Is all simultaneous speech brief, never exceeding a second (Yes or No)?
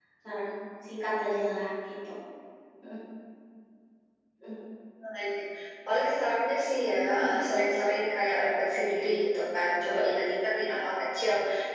Yes